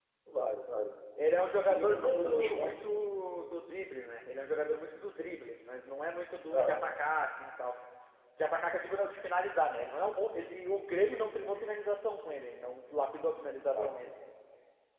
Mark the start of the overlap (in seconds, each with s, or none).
1.6 s